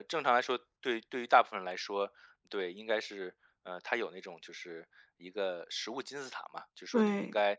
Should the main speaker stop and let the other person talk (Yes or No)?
No